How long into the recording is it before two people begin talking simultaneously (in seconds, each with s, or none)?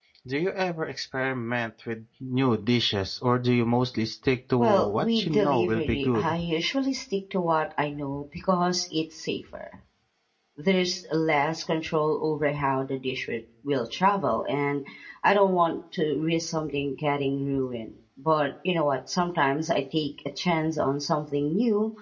4.6 s